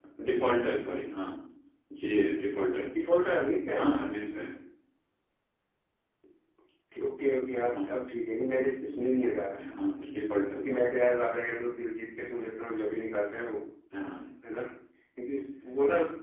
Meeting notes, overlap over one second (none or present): none